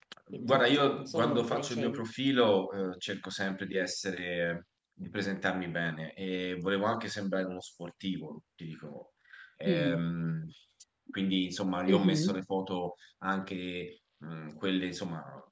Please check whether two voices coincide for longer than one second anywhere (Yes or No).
Yes